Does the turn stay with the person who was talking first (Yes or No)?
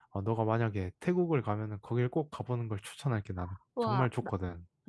No